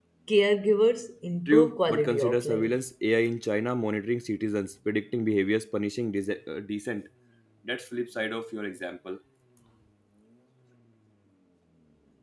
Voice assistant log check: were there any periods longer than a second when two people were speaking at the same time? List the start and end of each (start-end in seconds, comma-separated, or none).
1.5-2.8